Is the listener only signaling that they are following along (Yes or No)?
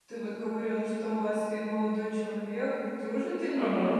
No